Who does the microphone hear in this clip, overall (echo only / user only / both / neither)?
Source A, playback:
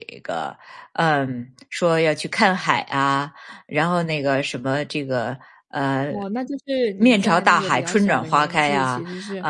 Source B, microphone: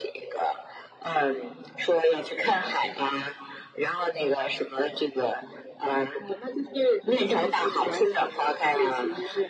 echo only